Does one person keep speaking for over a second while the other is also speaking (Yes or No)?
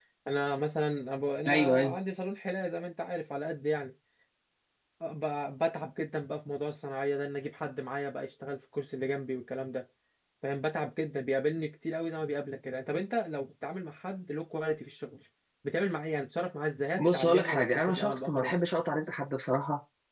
Yes